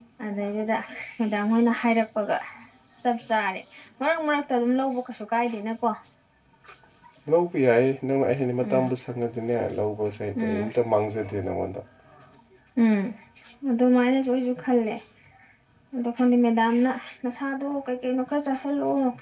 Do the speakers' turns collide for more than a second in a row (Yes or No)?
No